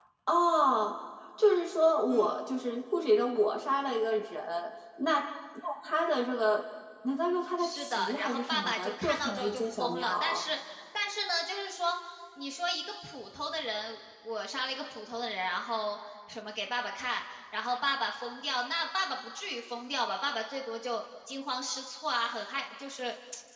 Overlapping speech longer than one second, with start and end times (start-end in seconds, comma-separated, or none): 7.6-10.4